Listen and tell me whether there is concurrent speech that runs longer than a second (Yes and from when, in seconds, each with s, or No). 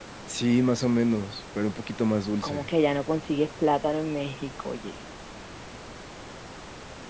No